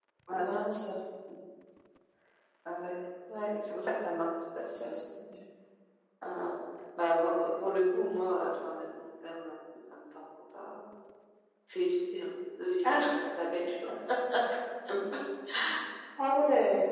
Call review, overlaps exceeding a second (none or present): none